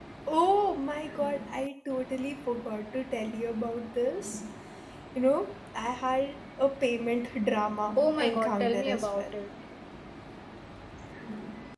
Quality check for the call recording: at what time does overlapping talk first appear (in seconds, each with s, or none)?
8.0 s